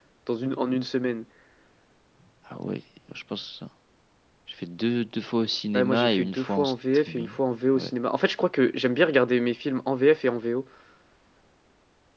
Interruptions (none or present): present